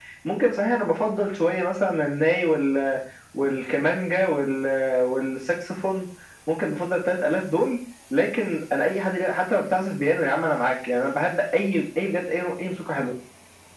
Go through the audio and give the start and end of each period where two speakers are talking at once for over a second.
none

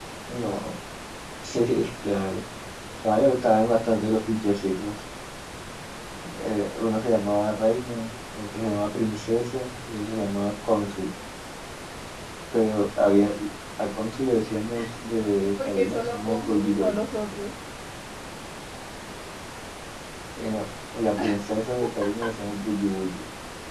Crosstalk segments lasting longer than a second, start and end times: 15.4-17.0

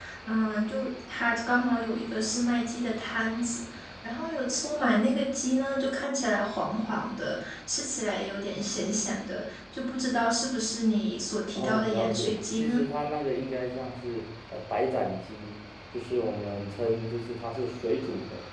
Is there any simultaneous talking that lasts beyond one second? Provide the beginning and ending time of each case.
11.5-12.8

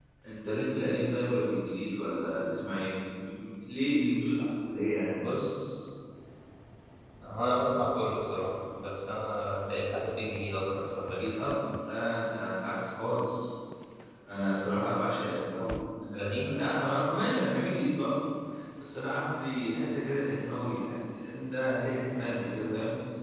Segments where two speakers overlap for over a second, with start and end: none

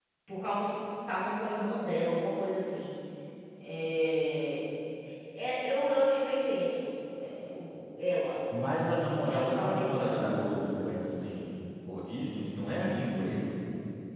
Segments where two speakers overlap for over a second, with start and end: 8.6-10.8

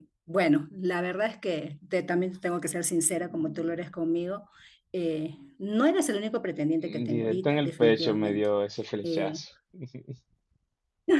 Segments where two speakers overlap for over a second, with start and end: 7.1-8.5

